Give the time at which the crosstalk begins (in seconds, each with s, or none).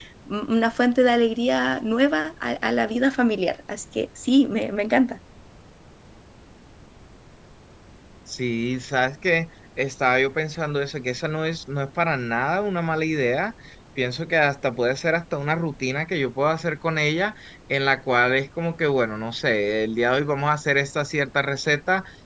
none